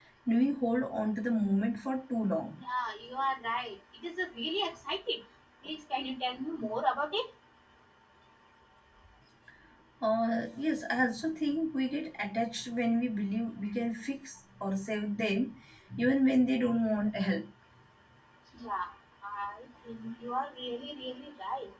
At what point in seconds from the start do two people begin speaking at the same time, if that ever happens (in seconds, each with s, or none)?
none